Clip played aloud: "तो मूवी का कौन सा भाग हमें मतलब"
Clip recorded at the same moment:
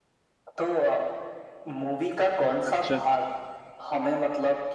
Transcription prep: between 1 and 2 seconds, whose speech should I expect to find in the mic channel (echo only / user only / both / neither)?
echo only